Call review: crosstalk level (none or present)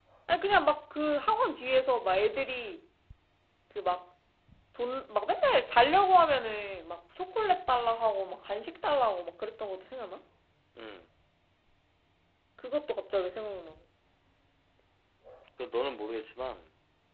none